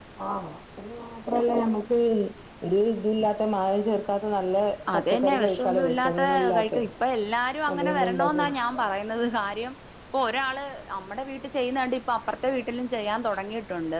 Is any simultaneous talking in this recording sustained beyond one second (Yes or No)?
Yes